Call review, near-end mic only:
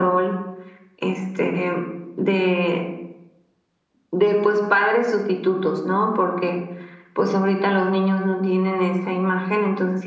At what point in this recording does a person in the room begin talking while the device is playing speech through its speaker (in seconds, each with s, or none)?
none